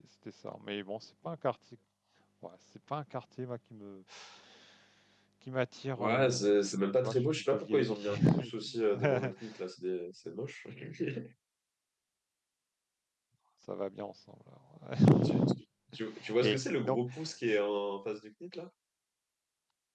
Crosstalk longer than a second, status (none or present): present